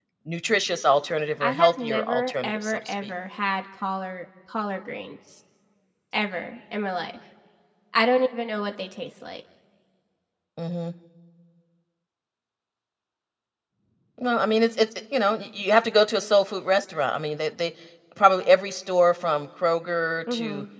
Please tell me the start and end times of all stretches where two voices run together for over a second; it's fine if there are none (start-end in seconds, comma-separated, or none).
1.4-3.1